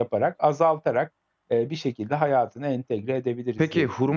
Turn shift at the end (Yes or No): Yes